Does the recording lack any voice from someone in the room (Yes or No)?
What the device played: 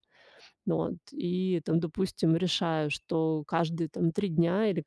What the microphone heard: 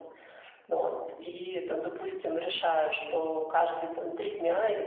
Yes